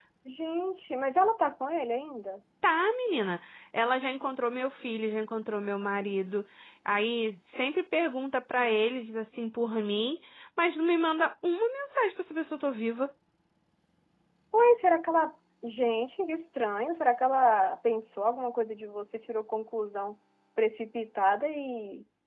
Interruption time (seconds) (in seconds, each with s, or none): none